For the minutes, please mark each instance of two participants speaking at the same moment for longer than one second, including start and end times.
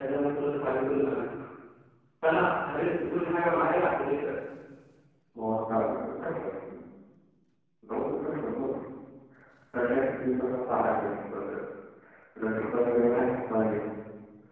none

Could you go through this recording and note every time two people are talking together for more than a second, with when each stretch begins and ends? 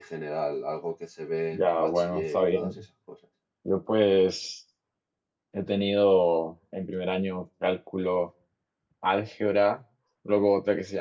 1.5-2.7

